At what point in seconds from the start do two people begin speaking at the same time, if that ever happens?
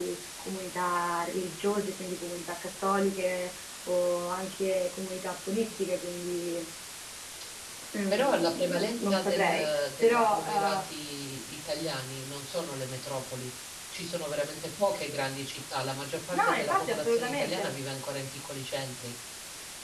8 s

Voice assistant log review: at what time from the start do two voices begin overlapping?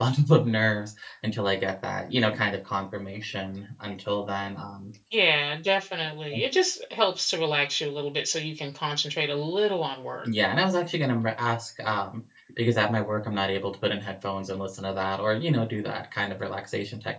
none

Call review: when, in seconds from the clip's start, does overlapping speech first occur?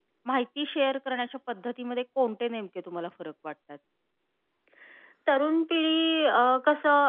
none

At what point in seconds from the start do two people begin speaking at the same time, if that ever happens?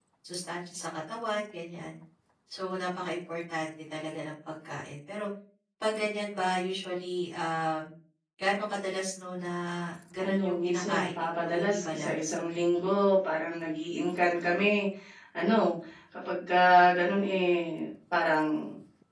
10 s

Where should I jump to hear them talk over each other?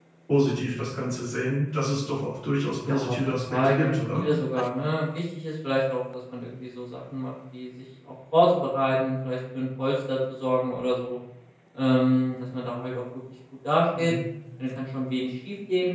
3 s

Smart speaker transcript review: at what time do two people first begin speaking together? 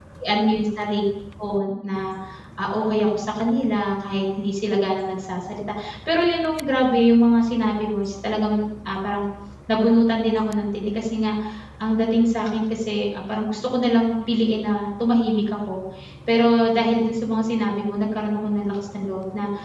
none

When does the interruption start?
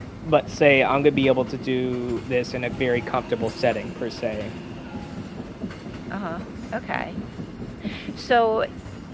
none

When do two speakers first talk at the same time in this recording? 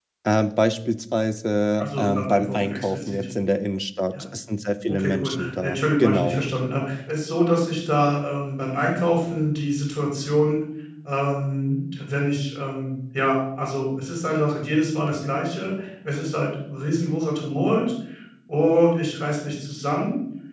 2 s

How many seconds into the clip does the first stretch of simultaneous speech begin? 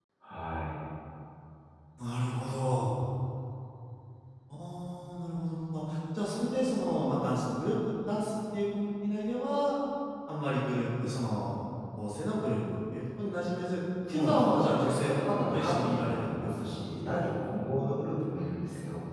14 s

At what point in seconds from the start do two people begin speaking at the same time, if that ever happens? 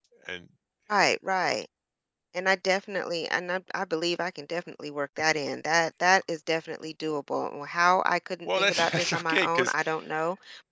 8 s

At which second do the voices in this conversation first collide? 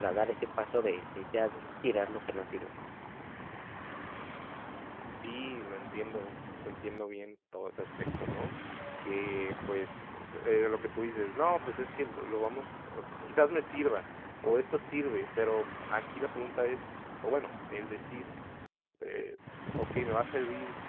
none

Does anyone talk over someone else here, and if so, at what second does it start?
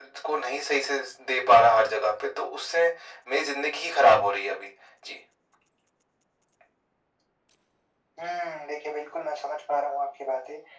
none

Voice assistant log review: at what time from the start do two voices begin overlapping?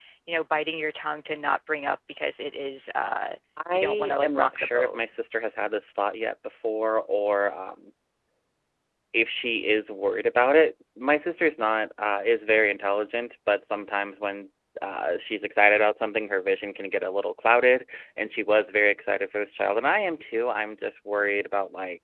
4 s

